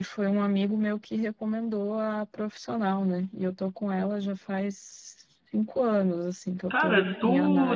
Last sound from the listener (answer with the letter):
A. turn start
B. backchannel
A